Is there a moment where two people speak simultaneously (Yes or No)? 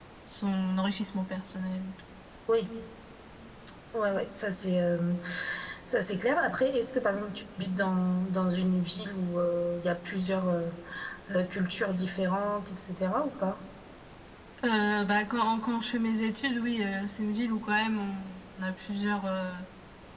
No